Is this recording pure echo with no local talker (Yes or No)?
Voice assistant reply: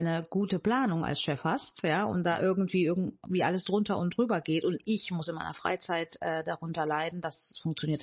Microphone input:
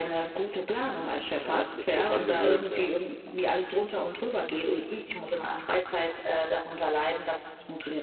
No